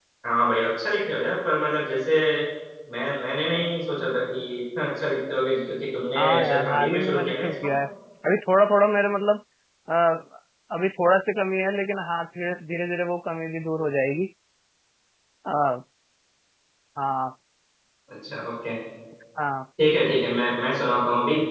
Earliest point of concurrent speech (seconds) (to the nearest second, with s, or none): 6 s